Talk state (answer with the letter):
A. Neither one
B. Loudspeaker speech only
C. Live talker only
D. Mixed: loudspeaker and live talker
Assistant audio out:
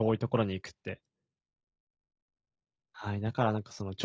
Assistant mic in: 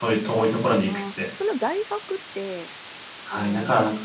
D